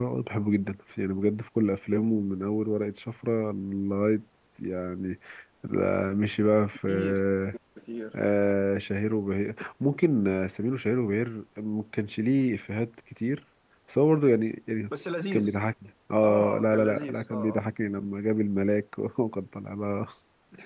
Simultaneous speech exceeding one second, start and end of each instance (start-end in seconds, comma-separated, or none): 16.2-17.6